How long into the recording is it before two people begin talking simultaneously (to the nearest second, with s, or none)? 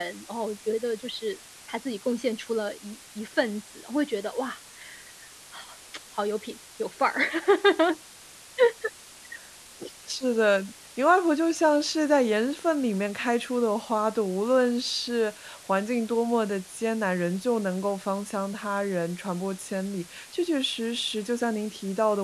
none